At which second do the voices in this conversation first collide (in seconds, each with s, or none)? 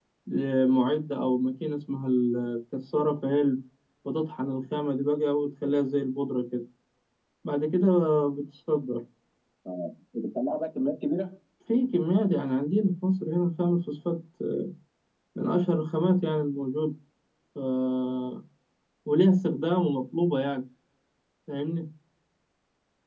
none